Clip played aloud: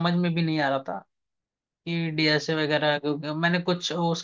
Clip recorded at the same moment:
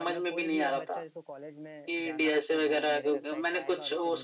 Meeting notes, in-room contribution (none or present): present